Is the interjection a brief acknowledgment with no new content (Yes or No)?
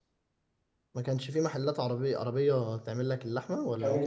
No